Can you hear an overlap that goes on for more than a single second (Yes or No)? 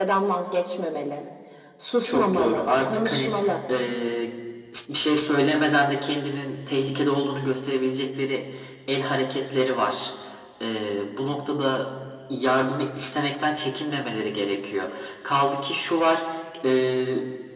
Yes